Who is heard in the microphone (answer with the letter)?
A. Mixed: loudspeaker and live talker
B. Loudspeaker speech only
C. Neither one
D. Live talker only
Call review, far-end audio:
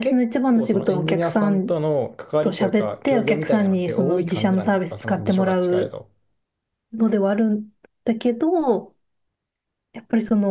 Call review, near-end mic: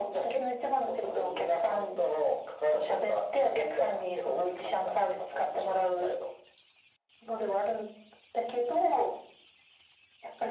B